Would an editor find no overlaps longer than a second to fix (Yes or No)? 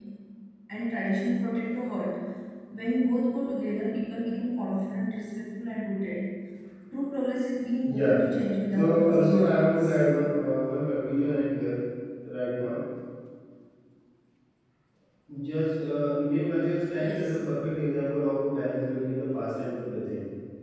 No